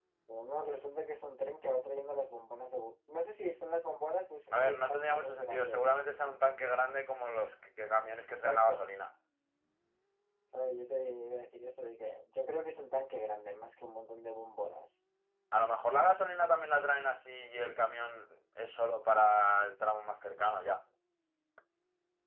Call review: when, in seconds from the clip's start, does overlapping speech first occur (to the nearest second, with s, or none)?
5 s